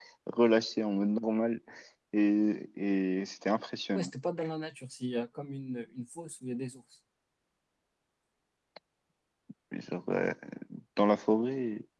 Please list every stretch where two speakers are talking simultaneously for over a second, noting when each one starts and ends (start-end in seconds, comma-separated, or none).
none